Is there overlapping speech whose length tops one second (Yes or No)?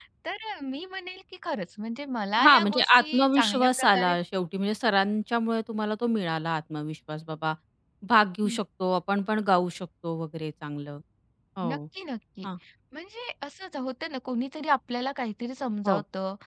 Yes